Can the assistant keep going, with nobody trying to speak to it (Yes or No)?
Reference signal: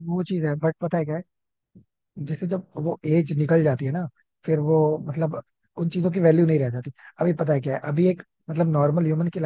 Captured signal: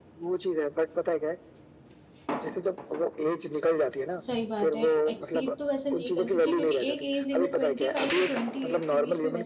No